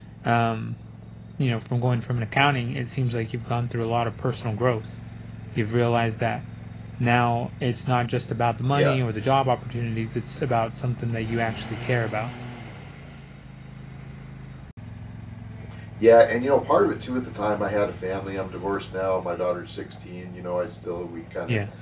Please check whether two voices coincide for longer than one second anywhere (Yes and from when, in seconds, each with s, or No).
No